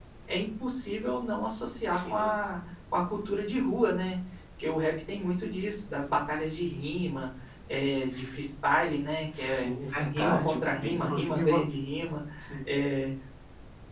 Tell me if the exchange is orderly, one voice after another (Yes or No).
No